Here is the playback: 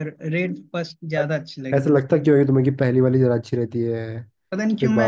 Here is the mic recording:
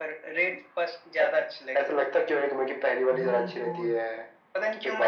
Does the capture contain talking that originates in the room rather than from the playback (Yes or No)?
Yes